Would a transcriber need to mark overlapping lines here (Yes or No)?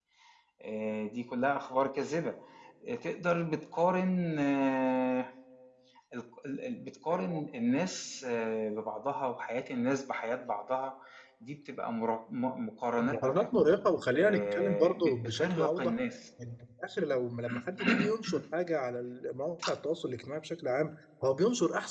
Yes